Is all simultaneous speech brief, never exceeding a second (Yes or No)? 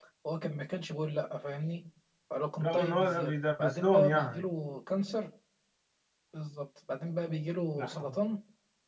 No